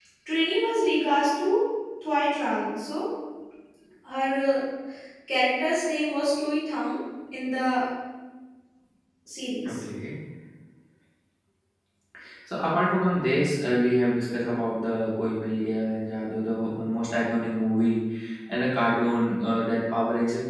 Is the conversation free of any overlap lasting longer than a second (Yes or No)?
Yes